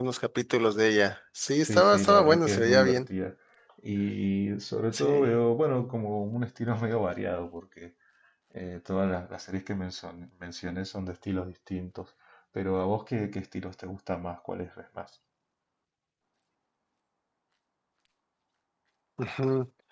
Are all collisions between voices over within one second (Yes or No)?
No